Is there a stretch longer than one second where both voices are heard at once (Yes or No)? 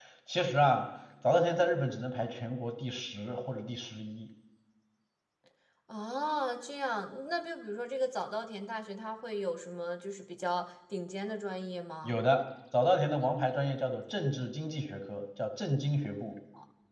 No